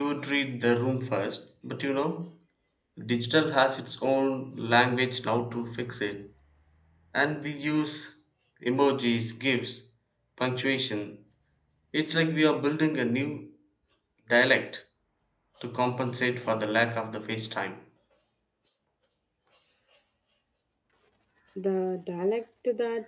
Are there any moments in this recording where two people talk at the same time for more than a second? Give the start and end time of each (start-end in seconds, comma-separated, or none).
none